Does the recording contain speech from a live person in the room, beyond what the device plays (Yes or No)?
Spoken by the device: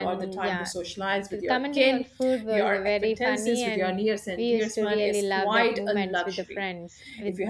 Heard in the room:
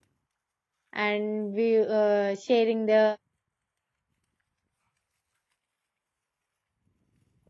Yes